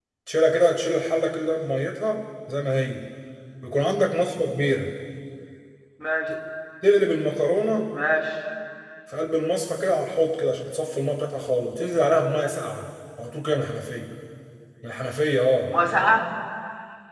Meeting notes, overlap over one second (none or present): none